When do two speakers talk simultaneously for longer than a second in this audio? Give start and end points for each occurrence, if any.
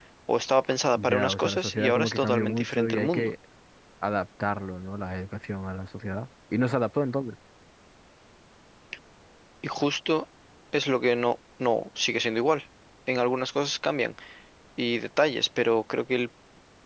1.0-3.3

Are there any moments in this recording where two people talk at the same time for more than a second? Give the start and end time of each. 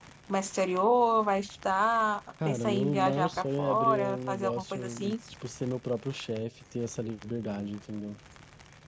2.4-5.1

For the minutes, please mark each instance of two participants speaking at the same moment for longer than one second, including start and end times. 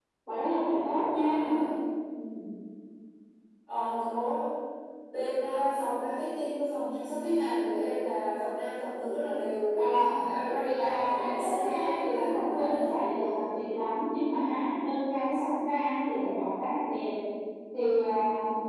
10.6-12.8

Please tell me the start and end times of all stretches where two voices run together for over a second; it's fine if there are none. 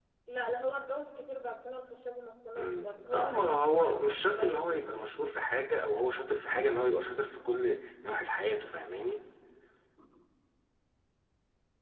2.6-4.8

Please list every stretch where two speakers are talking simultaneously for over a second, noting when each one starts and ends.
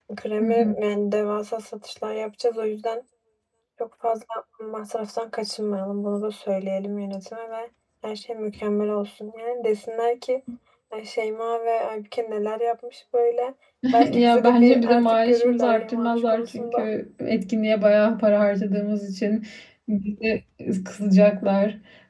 14.1-16.9

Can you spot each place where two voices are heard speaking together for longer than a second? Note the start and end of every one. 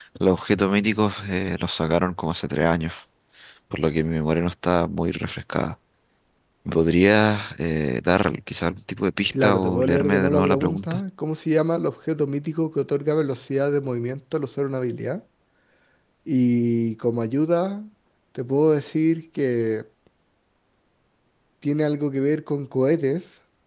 9.3-11.0

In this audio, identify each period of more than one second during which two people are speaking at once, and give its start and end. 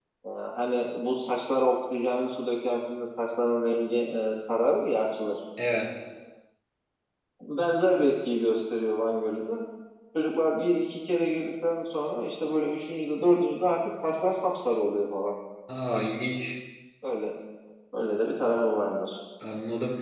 none

